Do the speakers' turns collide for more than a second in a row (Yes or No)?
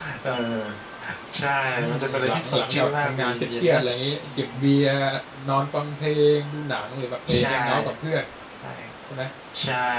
Yes